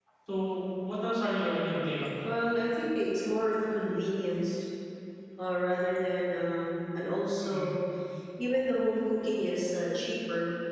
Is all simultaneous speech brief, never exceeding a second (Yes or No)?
Yes